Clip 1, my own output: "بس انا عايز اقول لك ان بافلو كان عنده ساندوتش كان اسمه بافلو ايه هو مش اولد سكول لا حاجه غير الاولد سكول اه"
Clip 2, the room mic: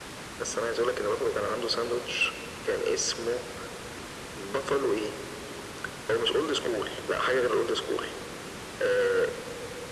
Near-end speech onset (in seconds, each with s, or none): none